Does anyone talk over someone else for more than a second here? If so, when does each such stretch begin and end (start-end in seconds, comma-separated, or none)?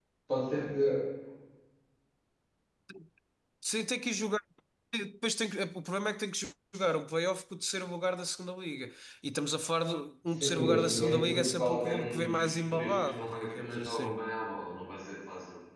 10.4-14.2